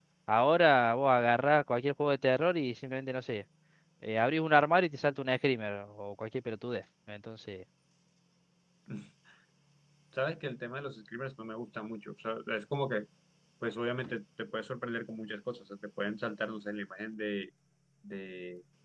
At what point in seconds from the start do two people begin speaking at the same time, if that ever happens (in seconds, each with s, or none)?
none